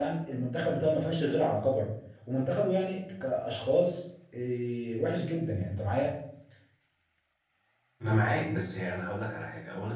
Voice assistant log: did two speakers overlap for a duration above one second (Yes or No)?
No